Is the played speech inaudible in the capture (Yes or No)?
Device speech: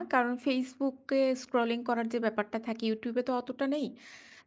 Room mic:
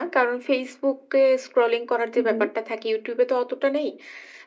No